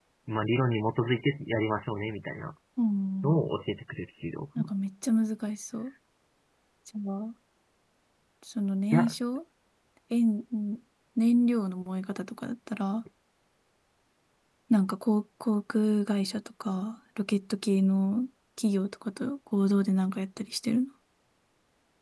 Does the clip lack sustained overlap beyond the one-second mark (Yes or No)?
Yes